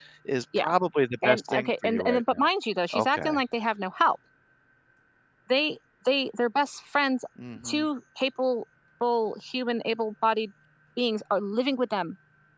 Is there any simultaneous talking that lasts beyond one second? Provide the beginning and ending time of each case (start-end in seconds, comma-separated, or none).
1.2-2.5